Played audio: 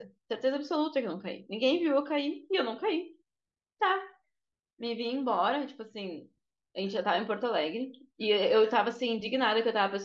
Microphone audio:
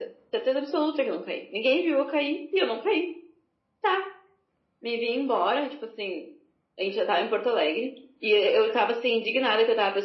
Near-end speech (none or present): none